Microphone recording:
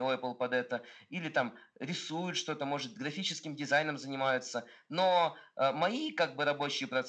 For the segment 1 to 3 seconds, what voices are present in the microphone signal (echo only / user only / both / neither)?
echo only